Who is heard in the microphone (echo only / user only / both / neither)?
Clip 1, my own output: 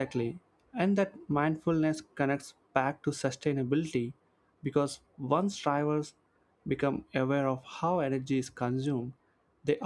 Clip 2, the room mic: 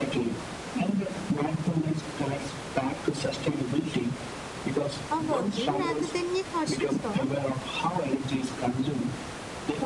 both